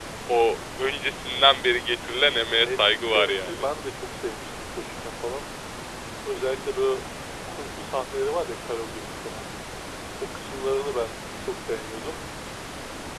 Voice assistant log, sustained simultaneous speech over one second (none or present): present